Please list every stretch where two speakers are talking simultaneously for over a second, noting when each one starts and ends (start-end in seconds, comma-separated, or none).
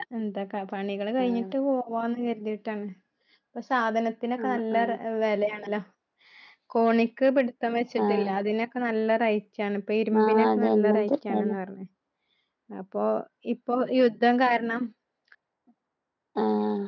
10.2-11.5